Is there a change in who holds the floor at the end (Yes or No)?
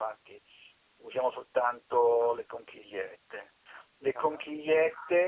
No